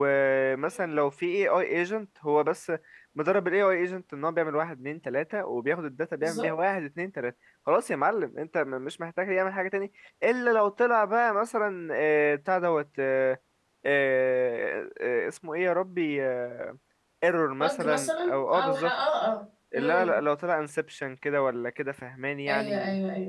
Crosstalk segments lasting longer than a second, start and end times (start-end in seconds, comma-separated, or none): 17.6-18.9